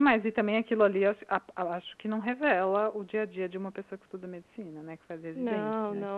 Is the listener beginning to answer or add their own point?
Yes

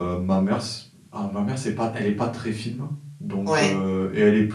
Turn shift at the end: No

